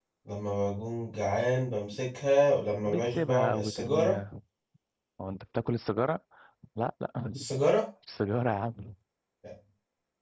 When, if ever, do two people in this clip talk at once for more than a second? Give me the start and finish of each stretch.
2.9-4.2

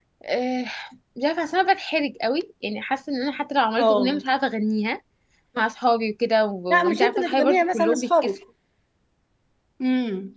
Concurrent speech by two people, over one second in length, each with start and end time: 6.7-8.3

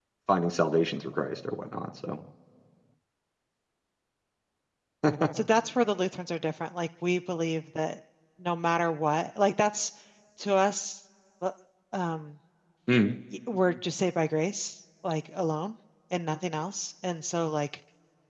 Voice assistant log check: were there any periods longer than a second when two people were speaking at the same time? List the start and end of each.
none

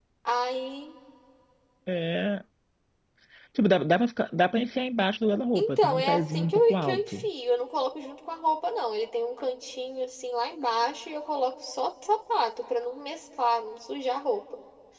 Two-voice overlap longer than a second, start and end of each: 5.6-7.2

